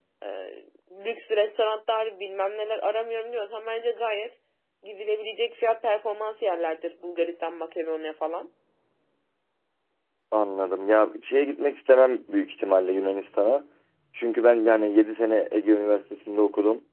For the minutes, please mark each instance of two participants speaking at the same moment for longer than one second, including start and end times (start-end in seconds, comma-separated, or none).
none